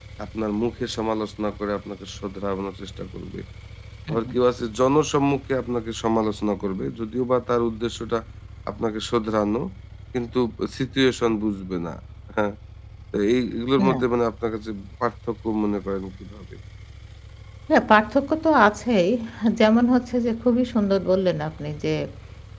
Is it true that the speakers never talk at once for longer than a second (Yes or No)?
Yes